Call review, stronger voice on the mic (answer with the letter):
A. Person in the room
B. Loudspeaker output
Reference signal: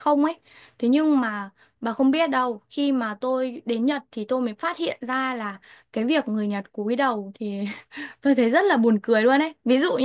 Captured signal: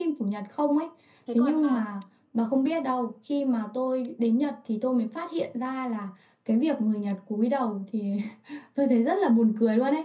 B